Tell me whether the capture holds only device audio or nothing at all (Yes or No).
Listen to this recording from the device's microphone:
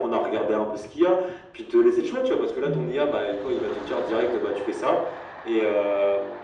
No